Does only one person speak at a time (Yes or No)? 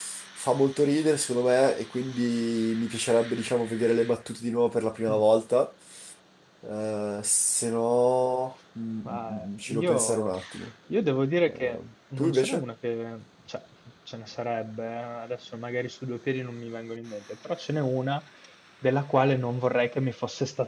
No